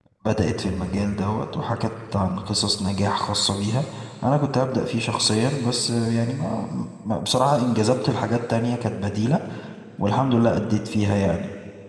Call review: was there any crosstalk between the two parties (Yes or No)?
No